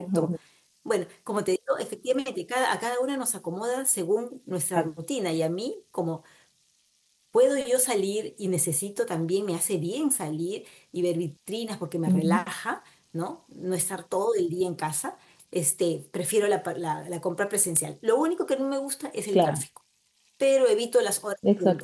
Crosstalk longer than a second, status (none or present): none